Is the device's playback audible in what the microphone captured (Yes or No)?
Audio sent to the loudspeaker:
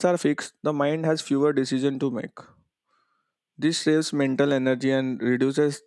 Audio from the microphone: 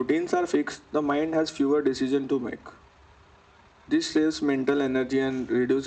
Yes